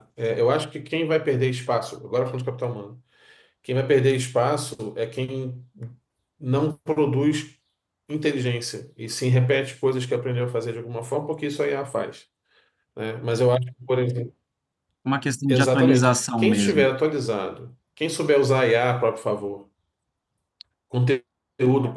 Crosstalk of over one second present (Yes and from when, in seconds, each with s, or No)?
Yes, from 15.5 s